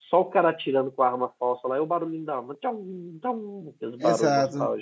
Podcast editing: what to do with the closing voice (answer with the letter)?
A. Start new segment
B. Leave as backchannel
A